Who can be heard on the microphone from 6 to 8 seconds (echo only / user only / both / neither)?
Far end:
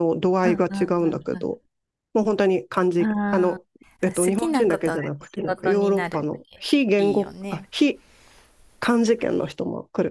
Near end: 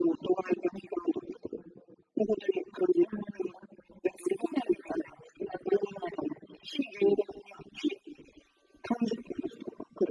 echo only